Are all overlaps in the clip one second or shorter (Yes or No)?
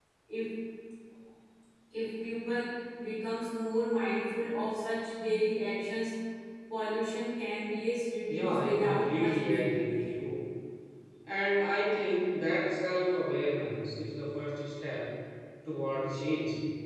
No